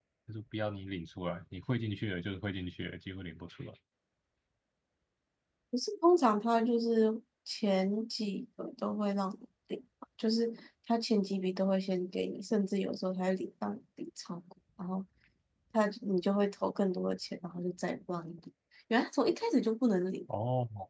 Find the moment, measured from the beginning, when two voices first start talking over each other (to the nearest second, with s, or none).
none